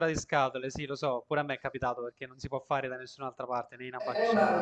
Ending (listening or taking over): taking over